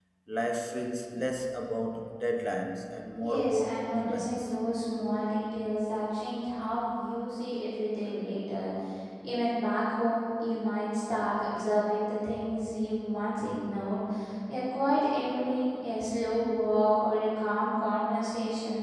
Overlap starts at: 3 s

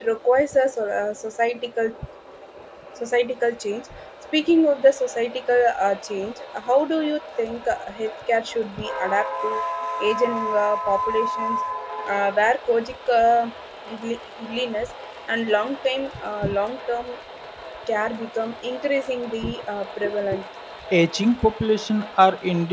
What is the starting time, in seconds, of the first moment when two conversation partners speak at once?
none

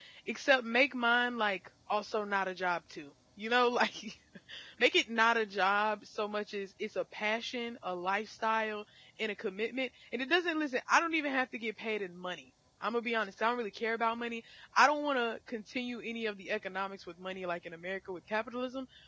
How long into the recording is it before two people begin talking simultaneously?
none

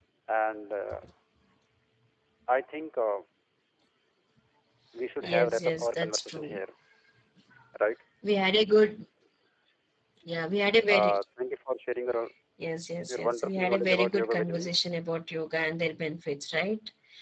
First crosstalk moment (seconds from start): 5 s

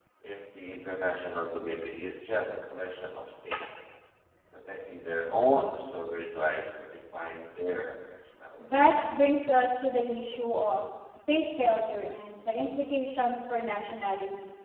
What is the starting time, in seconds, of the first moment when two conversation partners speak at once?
none

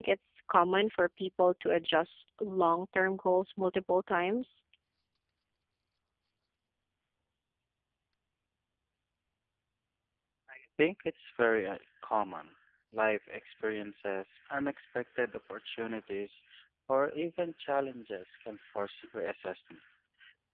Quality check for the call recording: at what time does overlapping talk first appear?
none

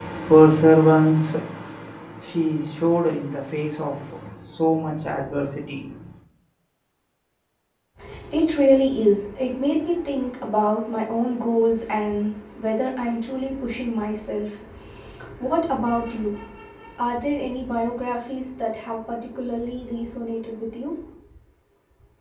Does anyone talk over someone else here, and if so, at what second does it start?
none

